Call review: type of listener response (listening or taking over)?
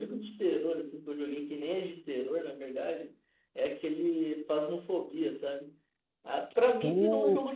listening